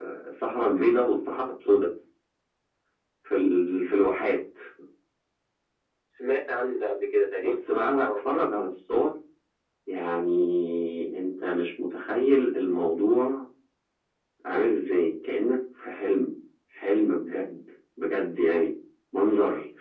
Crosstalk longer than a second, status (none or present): none